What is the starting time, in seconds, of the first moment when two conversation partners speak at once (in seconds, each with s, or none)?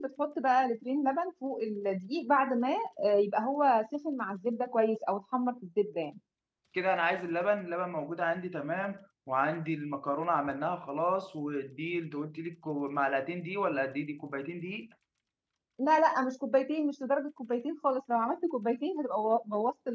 none